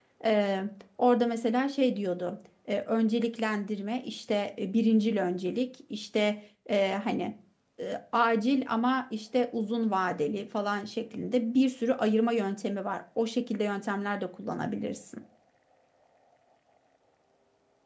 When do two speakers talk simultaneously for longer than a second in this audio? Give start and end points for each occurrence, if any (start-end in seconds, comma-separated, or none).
none